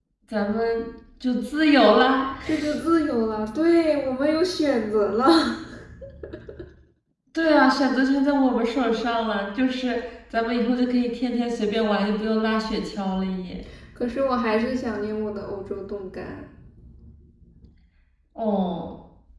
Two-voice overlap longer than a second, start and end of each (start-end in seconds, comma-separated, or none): none